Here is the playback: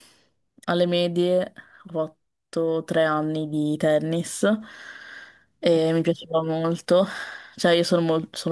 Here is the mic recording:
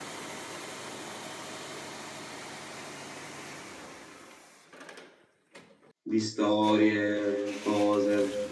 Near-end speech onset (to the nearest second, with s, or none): 6 s